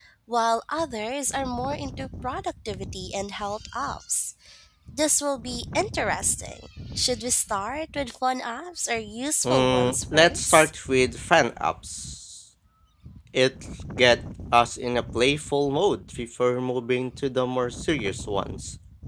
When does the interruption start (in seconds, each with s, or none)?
9.4 s